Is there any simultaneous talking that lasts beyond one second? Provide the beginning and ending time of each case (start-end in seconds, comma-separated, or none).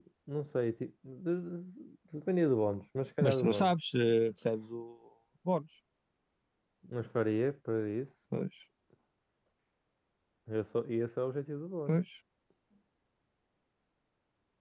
none